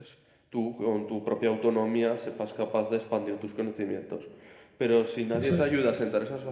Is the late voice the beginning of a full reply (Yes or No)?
No